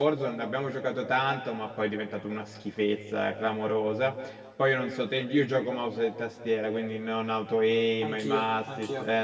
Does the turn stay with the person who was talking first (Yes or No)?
Yes